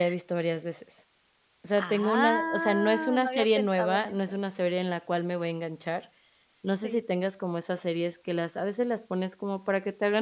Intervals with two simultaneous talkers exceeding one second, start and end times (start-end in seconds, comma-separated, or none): 1.8-4.4